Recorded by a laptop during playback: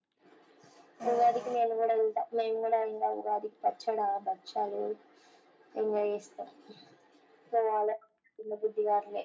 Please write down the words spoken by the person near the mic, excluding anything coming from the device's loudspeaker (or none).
ఆహా